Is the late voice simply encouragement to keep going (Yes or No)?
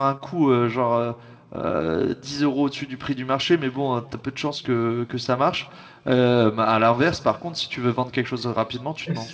No